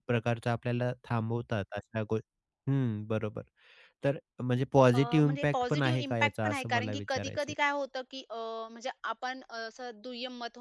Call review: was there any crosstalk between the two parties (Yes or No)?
Yes